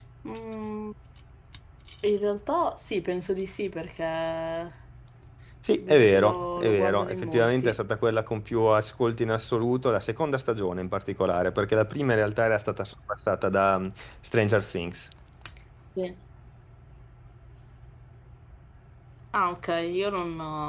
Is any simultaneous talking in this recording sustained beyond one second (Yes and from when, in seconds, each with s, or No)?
Yes, from 5.8 s